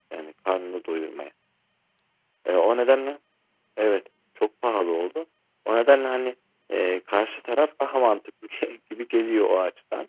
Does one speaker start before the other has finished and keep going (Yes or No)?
No